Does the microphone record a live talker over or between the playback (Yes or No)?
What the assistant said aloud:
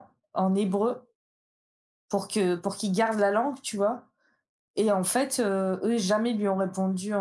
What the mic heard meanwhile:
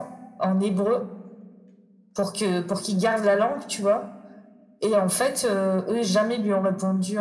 No